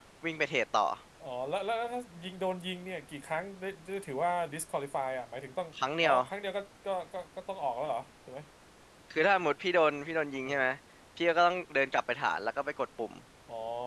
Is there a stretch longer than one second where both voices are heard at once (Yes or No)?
No